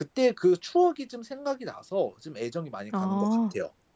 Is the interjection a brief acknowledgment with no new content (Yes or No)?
No